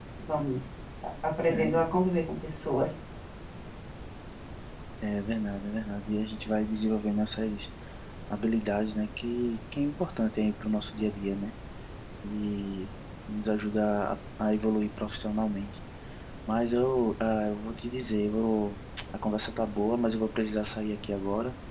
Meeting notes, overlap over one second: none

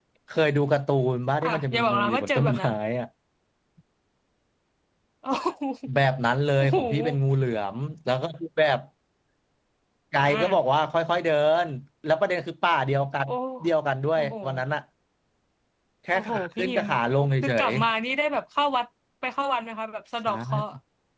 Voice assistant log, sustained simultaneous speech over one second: present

